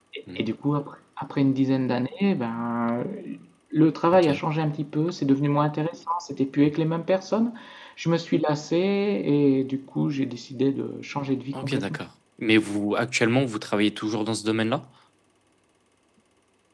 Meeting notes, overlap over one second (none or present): none